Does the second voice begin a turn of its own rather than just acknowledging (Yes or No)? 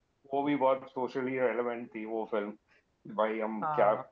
No